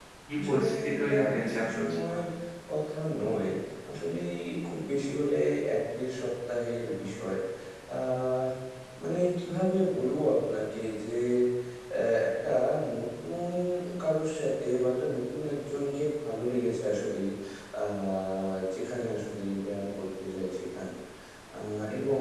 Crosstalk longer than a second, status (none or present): present